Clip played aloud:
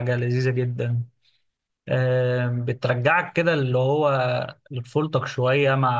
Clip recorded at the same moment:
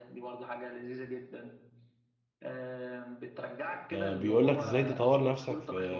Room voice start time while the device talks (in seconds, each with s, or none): 3.9 s